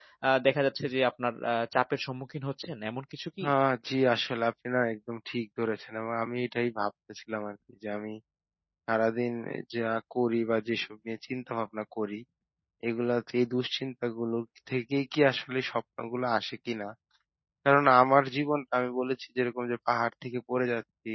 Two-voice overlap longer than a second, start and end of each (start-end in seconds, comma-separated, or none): none